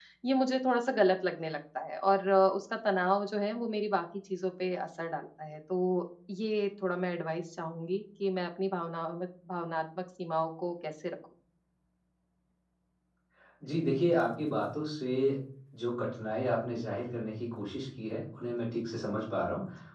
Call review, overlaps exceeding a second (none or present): none